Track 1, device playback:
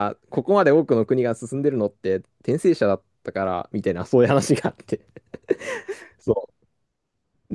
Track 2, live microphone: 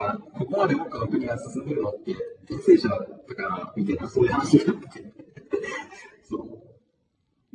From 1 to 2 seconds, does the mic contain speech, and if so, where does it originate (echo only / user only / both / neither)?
echo only